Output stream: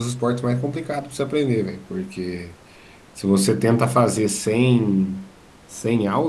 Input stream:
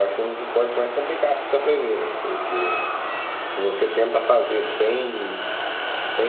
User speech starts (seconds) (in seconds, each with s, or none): none